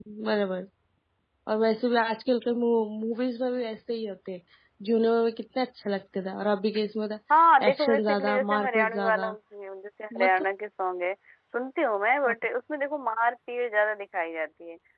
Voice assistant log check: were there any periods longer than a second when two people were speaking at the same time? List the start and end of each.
7.7-9.3

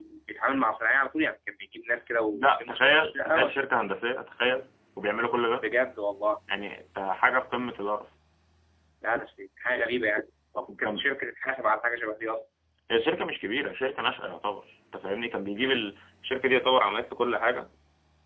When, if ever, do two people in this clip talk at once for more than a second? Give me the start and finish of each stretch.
2.3-3.5

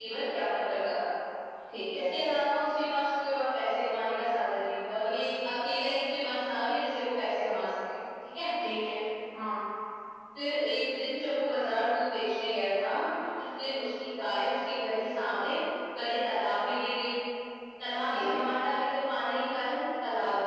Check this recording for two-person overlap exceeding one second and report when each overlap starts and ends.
none

